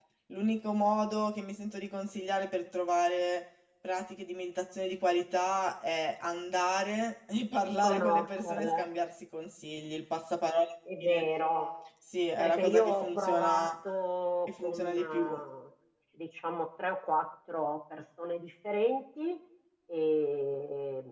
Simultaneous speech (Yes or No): Yes